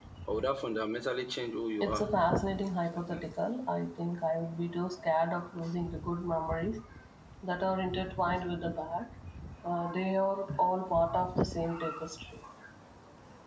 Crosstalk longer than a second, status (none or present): none